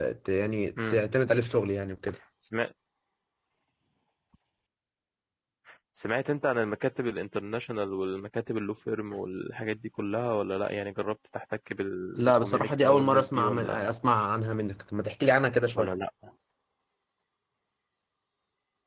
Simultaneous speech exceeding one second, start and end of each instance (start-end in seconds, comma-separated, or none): 12.2-13.9